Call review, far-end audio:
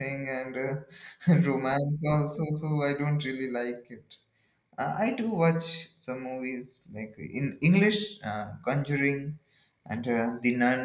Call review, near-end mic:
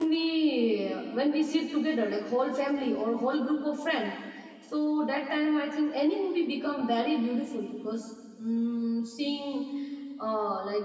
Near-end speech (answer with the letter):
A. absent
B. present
B